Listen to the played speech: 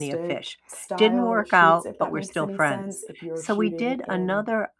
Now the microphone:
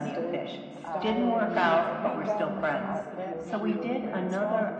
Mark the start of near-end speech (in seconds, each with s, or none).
0.8 s